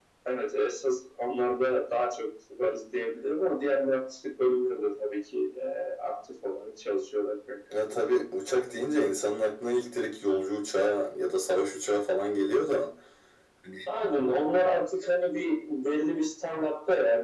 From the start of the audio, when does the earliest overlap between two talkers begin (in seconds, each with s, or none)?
none